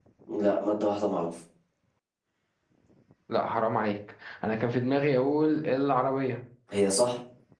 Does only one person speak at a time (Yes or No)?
Yes